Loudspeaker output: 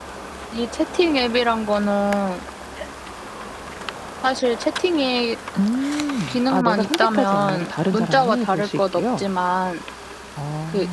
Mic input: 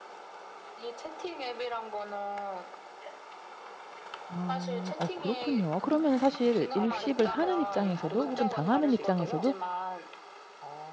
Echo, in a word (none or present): present